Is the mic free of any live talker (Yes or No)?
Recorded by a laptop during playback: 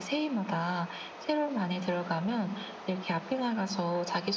Yes